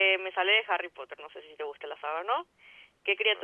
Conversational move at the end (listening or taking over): listening